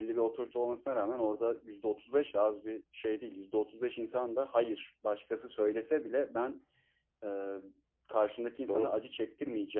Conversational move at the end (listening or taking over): listening